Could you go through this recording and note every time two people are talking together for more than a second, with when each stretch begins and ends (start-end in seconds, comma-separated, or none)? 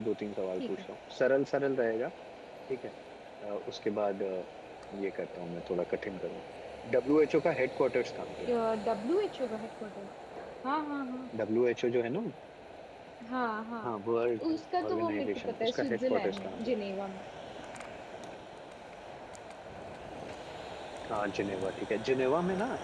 14.5-16.6